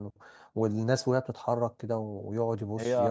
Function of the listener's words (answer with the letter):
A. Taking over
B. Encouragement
B